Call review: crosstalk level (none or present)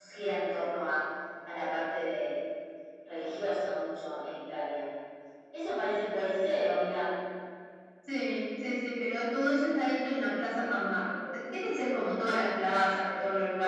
none